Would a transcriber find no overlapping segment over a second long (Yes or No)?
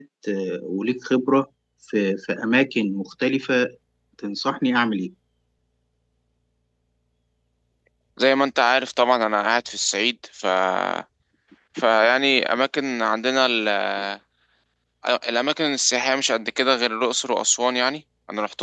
Yes